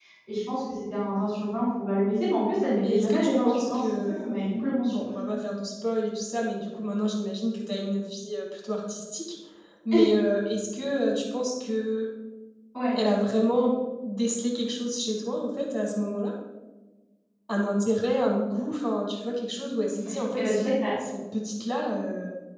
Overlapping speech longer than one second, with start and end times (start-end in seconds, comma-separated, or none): 2.8-4.3